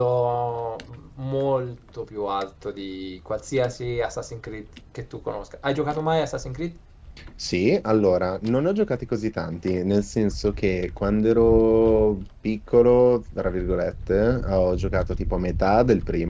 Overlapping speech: No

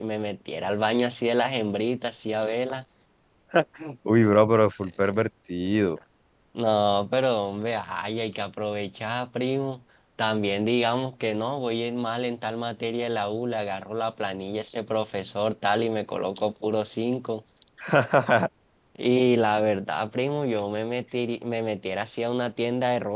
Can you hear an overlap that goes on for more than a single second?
No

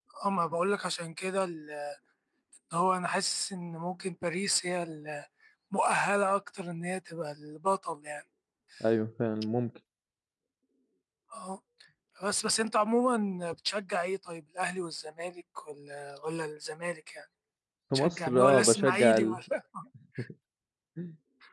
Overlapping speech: Yes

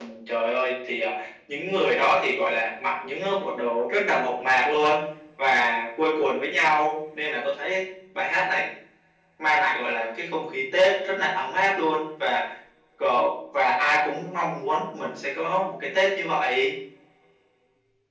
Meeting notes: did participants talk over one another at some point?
No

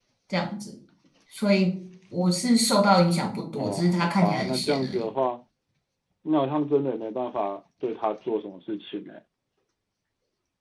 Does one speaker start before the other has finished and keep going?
Yes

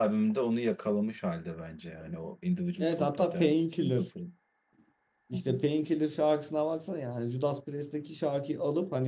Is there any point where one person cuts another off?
Yes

